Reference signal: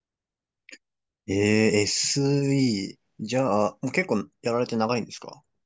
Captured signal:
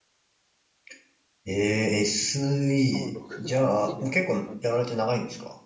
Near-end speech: present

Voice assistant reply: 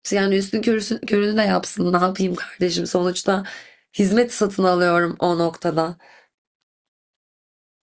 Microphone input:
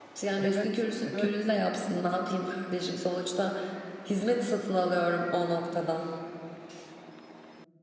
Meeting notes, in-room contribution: present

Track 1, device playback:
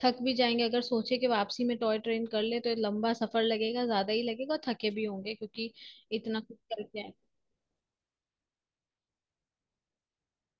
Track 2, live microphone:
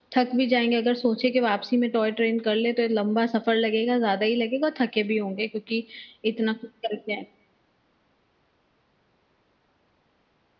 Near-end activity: none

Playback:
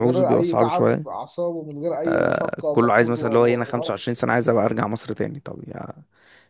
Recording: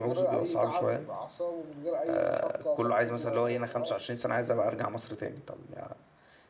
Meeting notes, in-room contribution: none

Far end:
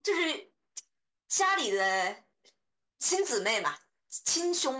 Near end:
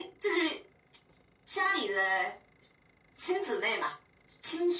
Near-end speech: none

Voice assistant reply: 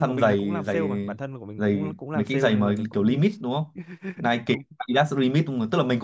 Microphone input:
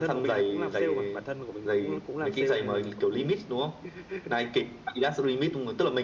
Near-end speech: none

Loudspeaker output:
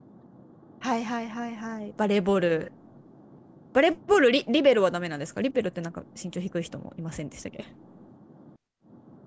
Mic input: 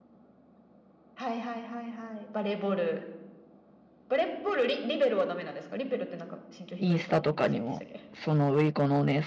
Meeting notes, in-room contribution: present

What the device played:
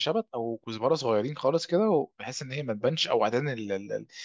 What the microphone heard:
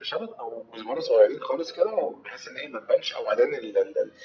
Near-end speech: none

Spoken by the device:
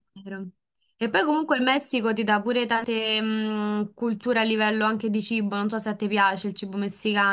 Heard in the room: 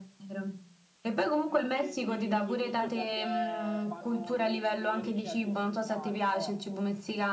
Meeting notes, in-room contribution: present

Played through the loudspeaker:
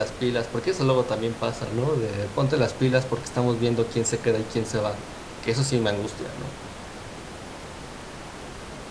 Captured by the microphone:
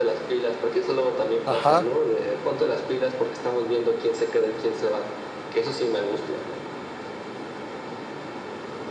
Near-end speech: present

